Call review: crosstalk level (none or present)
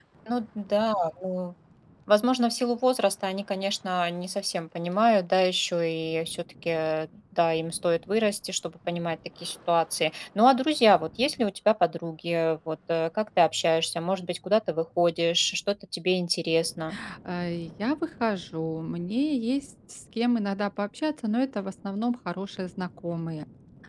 none